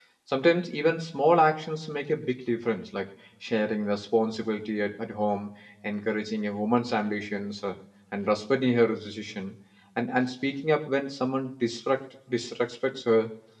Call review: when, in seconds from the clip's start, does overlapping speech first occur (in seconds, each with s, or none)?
none